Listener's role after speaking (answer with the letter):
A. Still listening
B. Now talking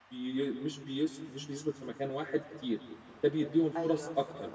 A